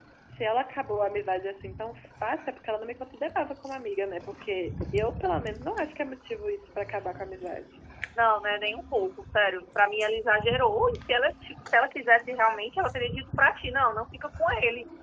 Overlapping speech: No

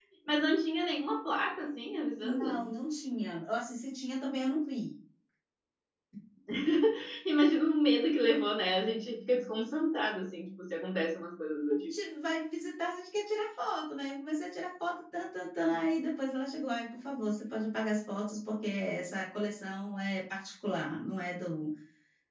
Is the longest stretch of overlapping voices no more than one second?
Yes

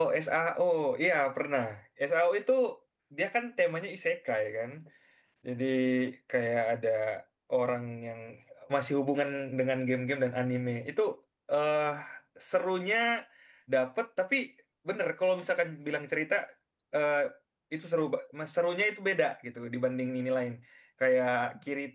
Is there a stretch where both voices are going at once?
No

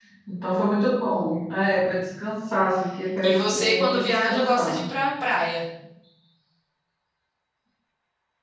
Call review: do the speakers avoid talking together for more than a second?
No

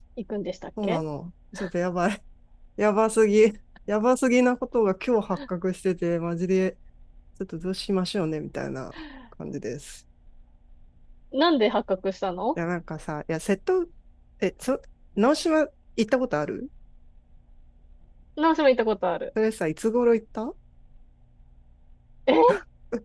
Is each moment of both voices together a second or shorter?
Yes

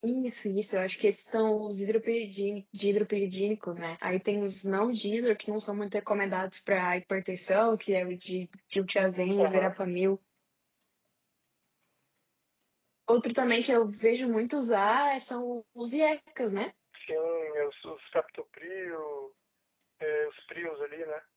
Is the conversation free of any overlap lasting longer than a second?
Yes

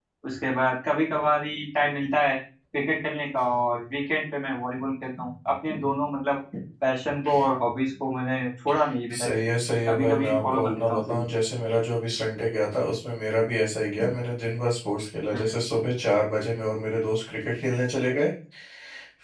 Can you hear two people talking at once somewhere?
Yes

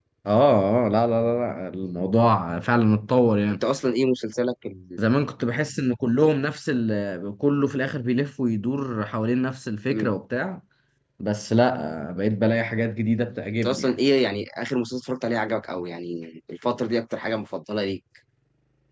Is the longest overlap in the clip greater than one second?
No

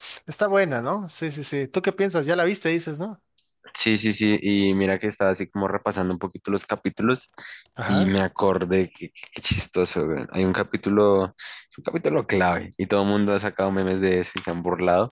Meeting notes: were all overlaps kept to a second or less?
Yes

